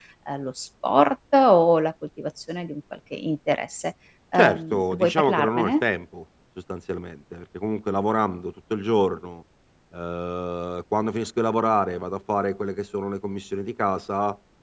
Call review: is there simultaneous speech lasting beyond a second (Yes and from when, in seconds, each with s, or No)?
Yes, from 4.3 s